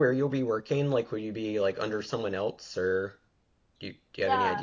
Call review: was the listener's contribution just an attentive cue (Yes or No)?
No